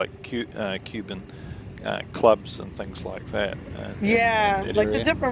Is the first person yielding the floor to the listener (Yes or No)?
Yes